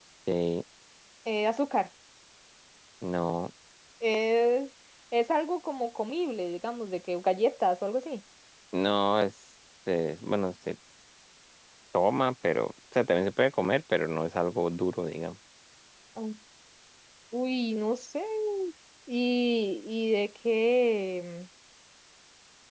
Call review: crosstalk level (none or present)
none